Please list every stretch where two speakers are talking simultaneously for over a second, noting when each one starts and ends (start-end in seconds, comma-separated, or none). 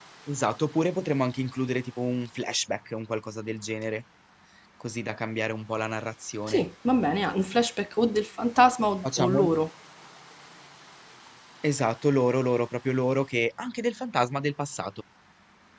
none